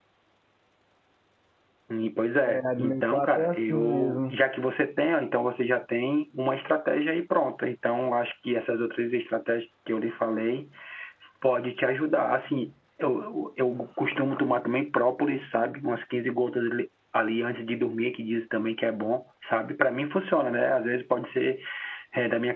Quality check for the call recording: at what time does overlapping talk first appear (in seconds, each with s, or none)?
2.5 s